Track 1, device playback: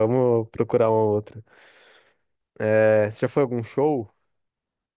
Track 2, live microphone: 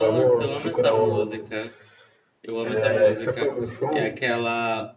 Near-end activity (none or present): present